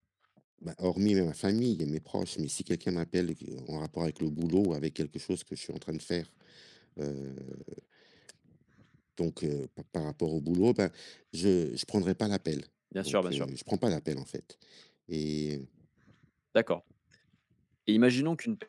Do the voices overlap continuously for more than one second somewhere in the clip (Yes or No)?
No